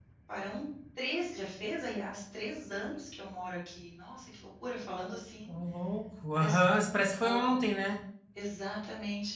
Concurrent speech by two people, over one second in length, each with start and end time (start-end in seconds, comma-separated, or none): 6.3-7.6